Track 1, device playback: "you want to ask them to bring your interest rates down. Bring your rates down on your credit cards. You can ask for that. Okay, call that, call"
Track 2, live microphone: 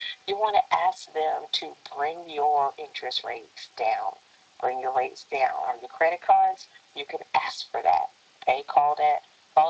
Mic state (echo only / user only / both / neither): echo only